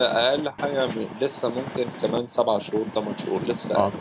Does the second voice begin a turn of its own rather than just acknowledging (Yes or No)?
Yes